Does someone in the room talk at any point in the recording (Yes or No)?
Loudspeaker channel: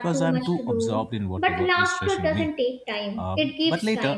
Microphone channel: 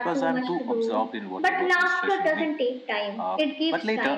No